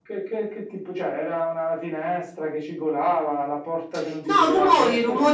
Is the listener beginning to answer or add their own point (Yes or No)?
Yes